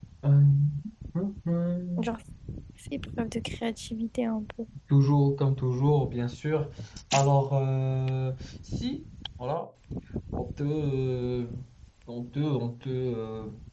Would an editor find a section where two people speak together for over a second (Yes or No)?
No